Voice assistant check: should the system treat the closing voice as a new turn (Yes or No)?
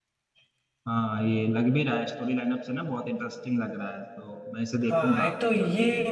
Yes